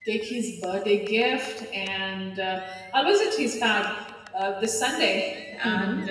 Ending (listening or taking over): listening